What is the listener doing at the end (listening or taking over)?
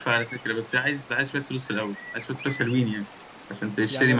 taking over